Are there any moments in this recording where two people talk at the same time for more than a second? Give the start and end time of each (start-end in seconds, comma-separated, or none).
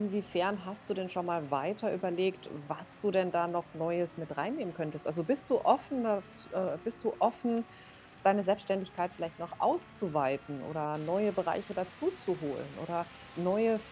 none